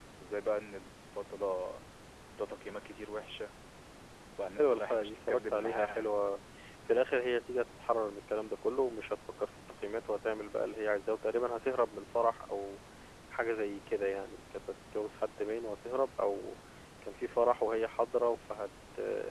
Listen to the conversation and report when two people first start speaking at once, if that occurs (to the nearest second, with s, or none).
5 s